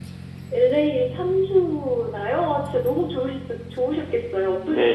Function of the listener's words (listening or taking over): taking over